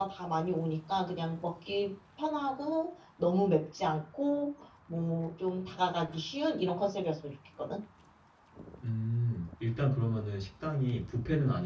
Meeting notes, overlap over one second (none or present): none